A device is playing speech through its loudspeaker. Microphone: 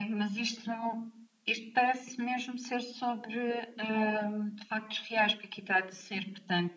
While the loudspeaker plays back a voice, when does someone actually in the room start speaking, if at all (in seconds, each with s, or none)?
none